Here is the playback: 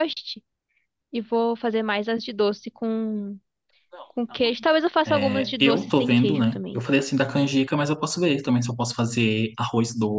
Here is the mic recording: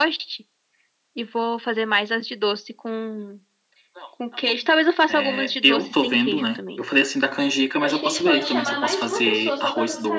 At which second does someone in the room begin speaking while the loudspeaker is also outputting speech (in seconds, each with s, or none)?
7.8 s